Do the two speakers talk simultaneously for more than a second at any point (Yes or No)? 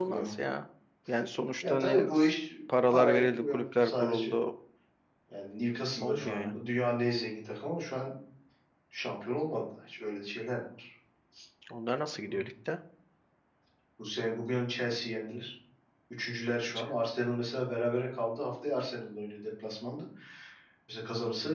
Yes